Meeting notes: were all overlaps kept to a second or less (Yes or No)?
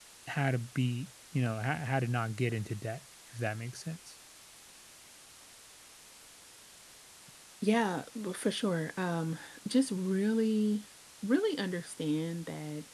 Yes